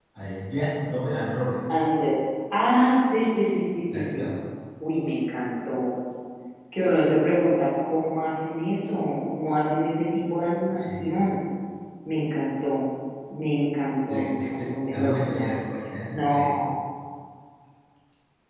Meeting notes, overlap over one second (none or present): present